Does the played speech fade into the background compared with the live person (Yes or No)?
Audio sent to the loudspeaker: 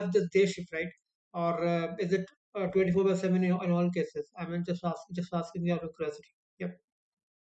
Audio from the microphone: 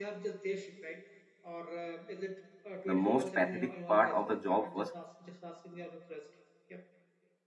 Yes